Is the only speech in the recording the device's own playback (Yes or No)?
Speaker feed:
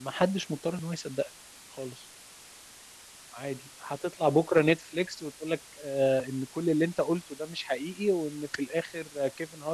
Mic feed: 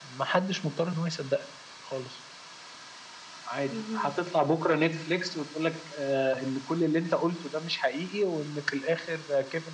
No